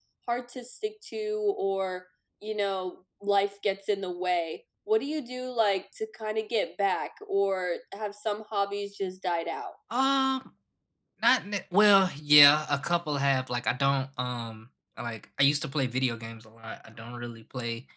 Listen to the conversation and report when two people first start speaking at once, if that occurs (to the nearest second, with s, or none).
none